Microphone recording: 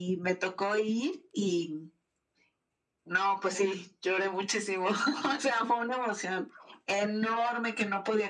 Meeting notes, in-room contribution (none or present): none